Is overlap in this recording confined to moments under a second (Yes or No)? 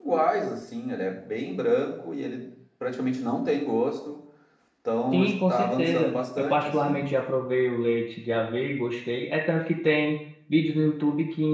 No